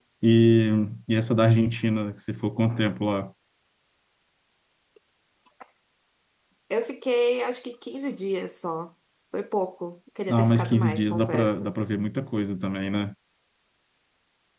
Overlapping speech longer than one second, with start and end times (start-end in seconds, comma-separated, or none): 10.3-11.7